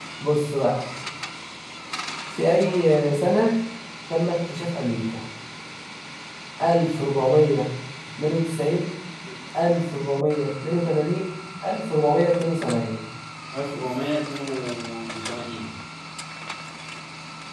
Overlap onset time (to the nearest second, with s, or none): none